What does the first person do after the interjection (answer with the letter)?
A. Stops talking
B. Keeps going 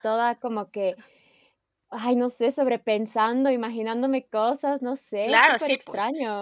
A